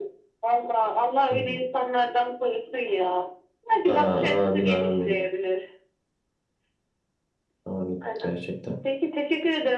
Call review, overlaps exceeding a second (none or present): present